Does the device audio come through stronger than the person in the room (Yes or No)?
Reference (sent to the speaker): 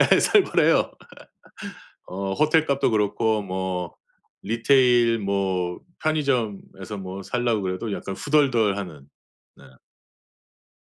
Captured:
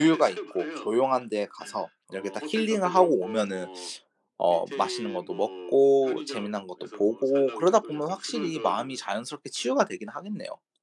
No